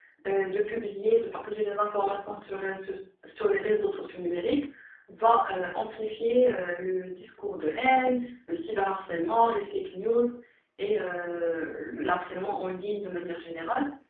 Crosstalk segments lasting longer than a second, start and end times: none

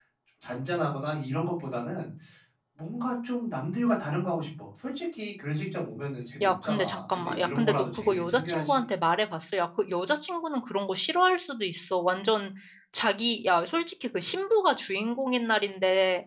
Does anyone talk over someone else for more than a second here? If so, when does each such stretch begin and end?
6.4-8.8

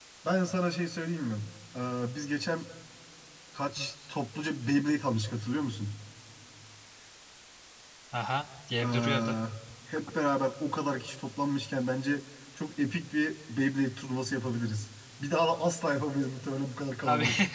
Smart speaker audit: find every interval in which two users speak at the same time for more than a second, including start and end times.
none

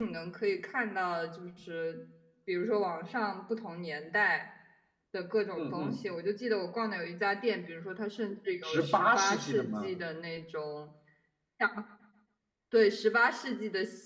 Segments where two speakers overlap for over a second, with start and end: 8.6-9.9

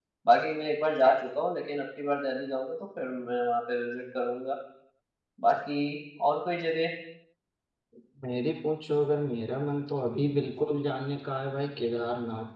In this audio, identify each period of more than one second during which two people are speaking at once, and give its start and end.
none

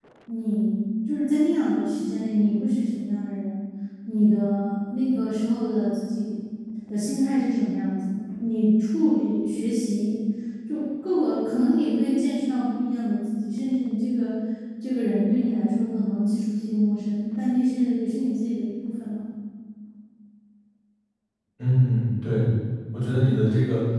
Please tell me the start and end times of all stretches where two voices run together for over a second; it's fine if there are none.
none

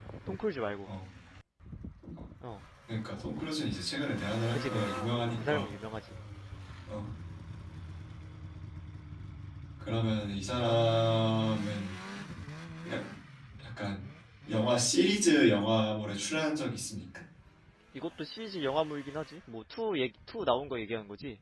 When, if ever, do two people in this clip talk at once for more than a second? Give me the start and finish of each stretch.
none

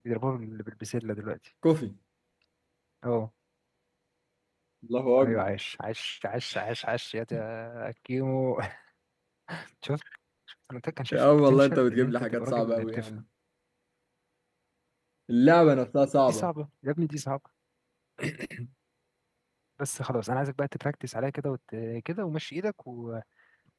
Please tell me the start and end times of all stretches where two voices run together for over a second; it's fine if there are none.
11.1-13.1

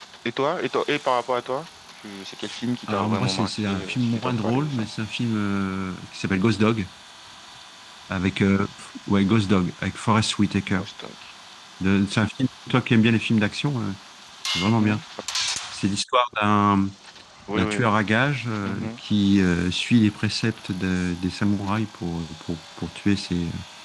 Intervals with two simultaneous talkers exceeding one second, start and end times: 2.9-4.8

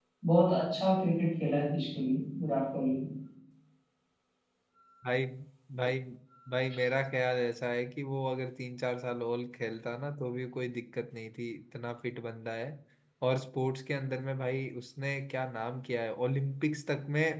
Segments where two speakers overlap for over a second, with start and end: none

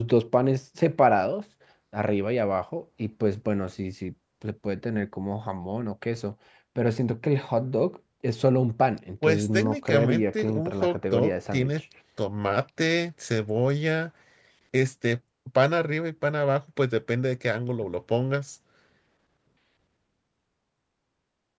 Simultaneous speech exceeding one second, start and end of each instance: 9.2-11.7

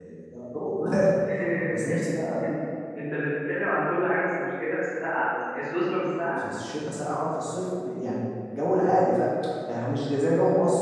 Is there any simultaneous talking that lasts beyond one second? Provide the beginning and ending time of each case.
none

